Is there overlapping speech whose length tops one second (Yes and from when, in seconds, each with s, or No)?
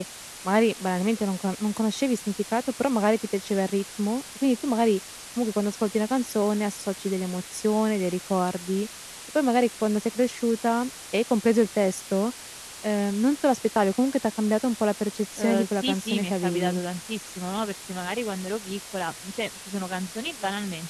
Yes, from 15.4 s